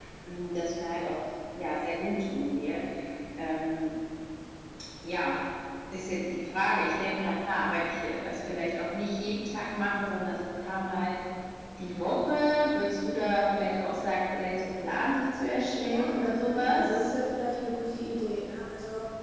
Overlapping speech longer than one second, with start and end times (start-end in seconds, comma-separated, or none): 15.7-17.0